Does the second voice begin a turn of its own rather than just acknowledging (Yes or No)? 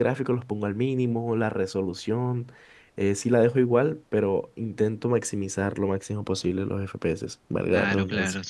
Yes